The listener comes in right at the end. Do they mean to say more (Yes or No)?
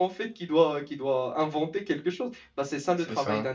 Yes